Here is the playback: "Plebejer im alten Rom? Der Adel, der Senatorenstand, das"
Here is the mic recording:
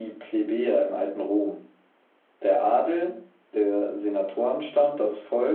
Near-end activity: none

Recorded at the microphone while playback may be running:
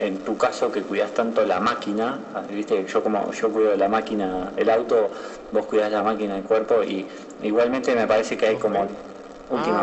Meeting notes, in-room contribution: present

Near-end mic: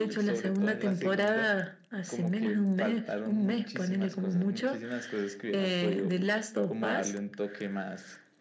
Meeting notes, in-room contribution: none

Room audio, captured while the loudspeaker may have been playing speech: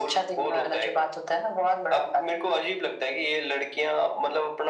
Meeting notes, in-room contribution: none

